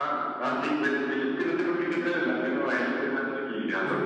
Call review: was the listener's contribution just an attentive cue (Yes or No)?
Yes